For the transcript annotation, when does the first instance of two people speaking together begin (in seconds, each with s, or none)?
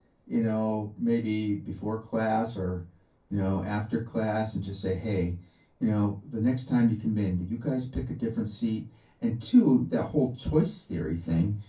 none